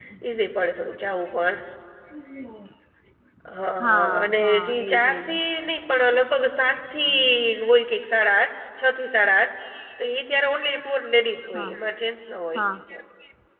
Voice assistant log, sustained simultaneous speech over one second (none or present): present